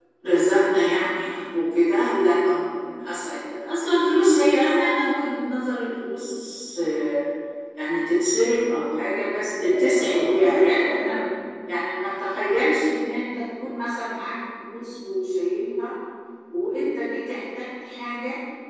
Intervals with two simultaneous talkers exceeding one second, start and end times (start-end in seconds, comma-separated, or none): 9.5-11.3